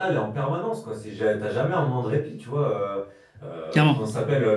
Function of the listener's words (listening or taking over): listening